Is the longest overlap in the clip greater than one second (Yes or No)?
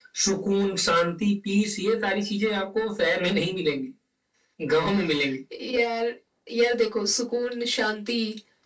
No